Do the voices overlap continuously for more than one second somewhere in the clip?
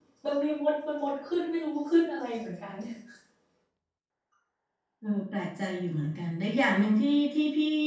No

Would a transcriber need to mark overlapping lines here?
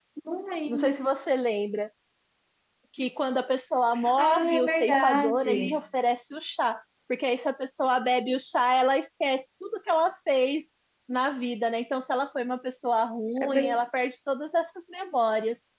Yes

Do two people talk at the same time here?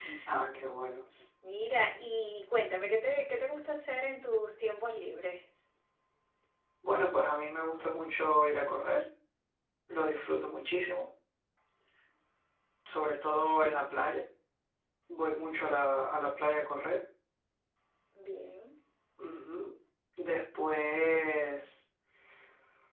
No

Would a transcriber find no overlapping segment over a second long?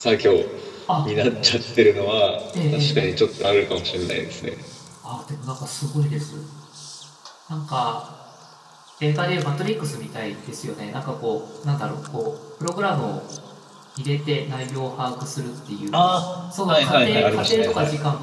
No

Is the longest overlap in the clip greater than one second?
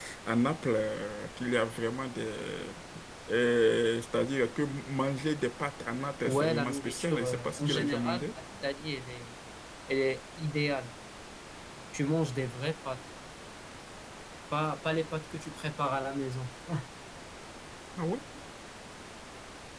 Yes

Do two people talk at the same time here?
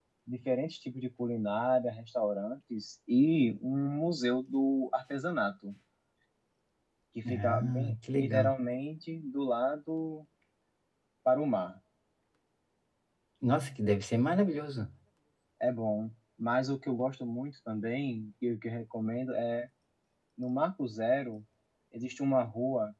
Yes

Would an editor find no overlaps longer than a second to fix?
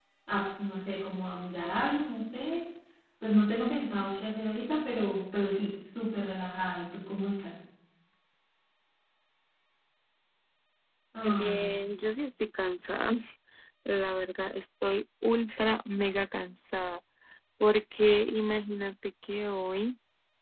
Yes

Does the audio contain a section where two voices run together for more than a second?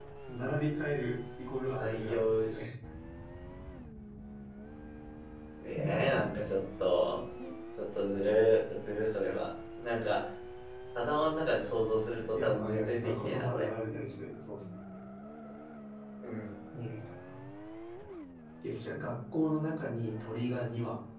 Yes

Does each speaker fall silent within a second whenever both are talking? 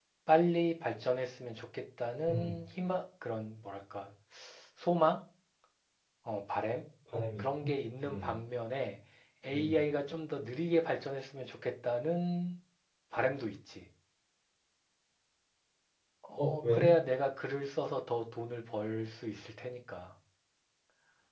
Yes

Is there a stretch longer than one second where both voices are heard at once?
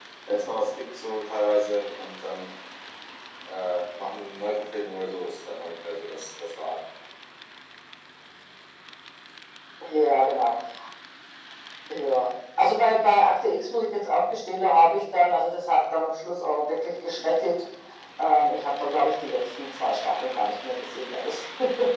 No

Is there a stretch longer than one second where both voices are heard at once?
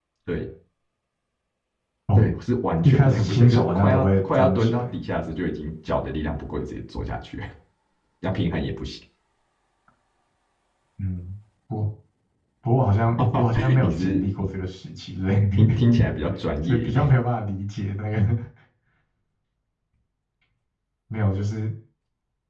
Yes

